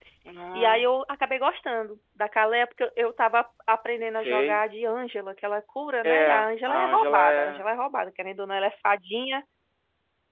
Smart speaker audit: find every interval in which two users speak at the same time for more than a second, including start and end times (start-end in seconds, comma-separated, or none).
6.0-7.6